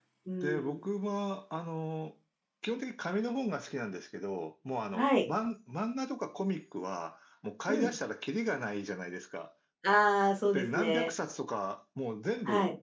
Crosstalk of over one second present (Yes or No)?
No